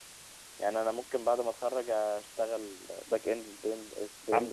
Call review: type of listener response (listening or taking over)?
taking over